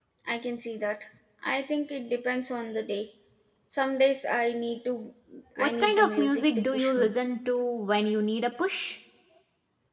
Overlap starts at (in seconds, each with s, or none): 5.6 s